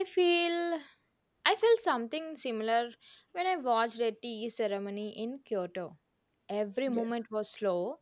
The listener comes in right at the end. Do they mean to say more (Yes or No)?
No